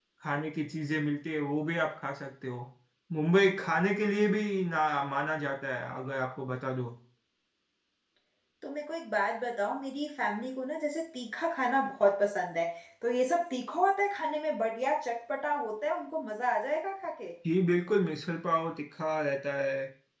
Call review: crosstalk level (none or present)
none